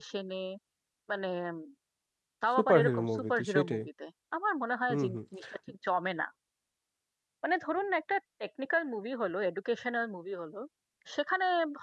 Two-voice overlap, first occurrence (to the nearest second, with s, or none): 3 s